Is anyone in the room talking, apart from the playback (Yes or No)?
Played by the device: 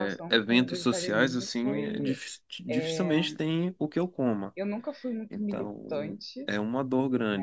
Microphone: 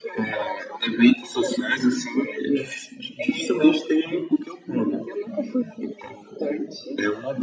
No